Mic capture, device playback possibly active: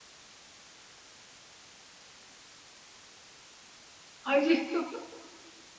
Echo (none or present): none